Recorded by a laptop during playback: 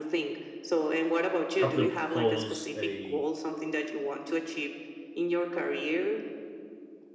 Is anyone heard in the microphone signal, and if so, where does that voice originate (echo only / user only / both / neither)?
both